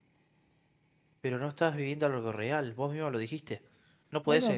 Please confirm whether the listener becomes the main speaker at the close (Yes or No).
Yes